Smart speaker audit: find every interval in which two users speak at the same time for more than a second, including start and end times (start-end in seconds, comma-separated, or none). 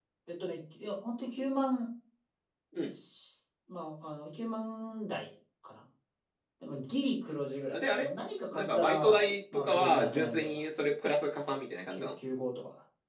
8.5-10.6